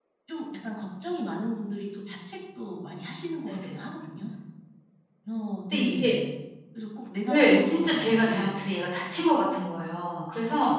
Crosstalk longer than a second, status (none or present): present